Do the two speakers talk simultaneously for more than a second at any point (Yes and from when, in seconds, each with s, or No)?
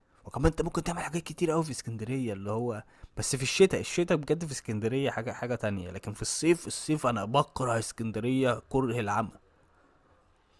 No